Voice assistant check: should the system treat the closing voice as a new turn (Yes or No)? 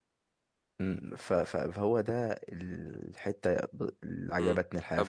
Yes